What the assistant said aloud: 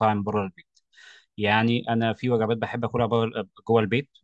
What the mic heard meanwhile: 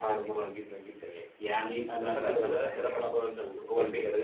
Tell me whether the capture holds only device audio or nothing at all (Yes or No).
No